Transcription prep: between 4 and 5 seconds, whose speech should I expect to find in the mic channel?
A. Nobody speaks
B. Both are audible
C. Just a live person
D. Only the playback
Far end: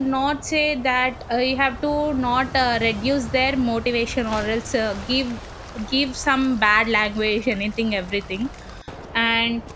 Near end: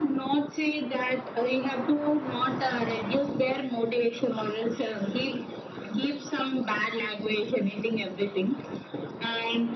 D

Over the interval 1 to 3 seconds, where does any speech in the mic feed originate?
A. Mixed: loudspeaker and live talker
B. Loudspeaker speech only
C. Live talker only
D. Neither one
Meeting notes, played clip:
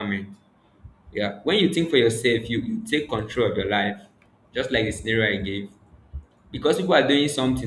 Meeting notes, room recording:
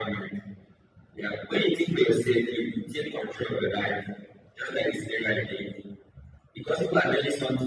B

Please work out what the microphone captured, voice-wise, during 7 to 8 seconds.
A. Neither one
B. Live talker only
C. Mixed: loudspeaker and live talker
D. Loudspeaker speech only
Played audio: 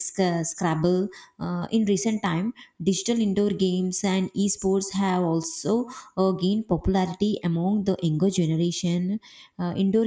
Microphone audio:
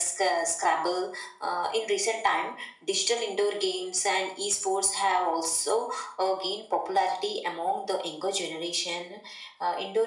D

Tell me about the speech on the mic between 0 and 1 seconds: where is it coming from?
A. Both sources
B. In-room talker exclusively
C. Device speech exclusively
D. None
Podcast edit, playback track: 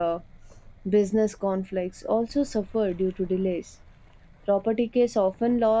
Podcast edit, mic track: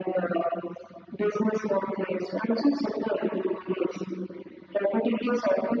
C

